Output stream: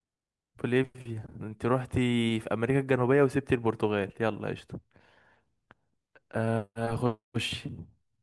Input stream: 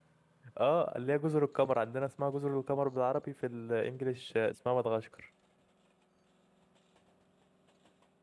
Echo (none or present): none